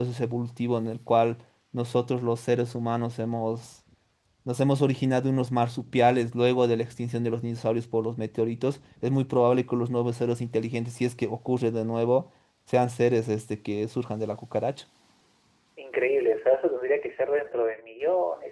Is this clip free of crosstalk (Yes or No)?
Yes